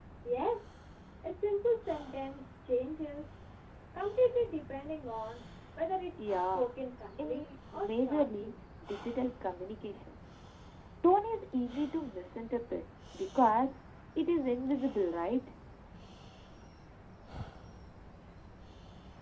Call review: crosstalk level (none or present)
present